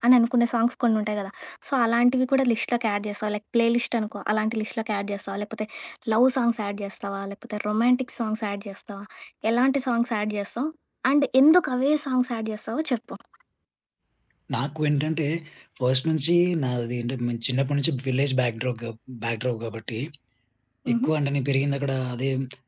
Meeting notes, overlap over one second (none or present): none